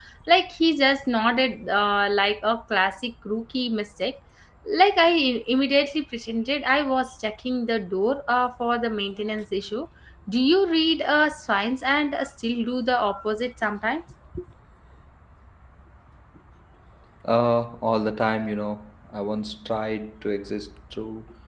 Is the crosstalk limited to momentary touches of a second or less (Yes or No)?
Yes